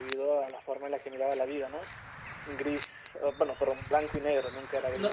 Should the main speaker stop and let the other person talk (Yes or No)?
Yes